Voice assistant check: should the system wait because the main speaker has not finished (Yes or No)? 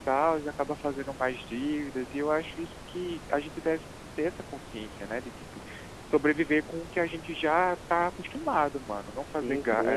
No